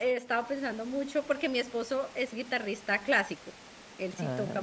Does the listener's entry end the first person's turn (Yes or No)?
No